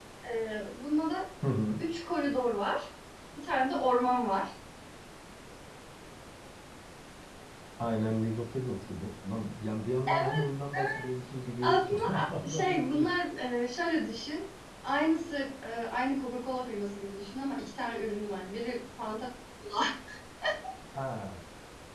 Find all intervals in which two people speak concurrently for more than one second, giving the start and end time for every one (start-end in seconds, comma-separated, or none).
11.6-13.1